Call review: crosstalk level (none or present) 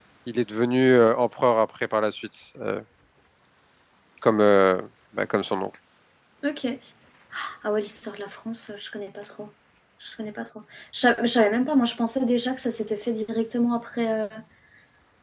none